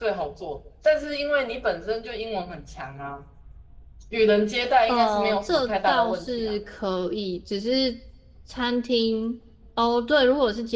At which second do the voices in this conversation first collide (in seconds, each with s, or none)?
4.9 s